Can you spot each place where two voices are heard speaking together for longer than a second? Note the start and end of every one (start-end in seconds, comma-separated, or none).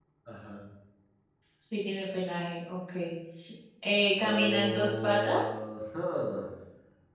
4.2-5.5